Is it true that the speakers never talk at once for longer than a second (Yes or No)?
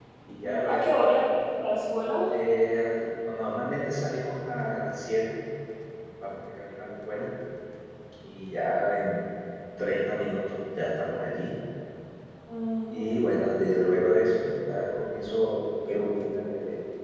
Yes